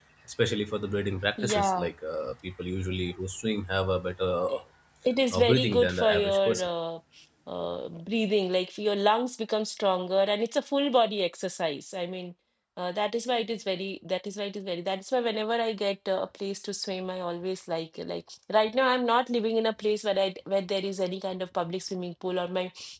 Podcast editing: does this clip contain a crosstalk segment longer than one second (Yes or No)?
Yes